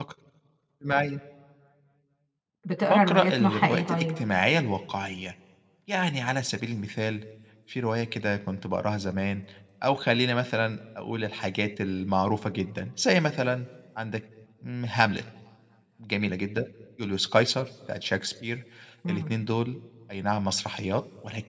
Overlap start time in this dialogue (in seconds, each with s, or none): 2.8 s